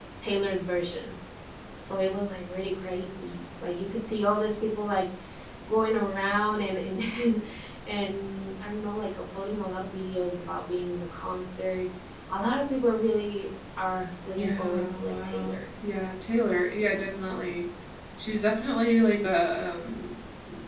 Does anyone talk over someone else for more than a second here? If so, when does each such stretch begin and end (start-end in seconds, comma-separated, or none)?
14.3-15.7